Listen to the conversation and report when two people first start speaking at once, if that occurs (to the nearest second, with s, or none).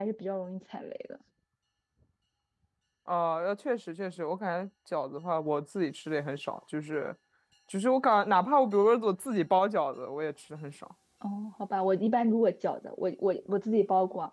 none